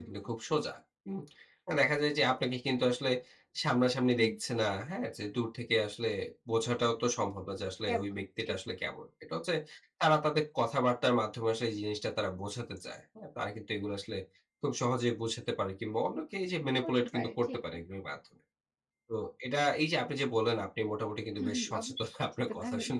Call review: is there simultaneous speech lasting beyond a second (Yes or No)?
Yes